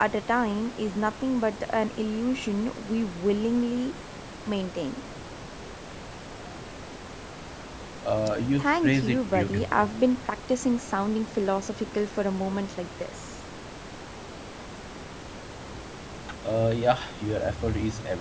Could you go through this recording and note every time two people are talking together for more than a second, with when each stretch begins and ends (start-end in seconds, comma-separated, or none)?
8.6-9.9